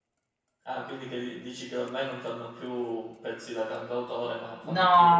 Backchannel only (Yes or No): No